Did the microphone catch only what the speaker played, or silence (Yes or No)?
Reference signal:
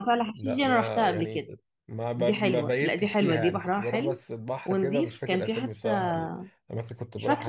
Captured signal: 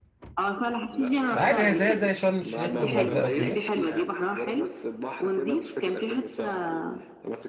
No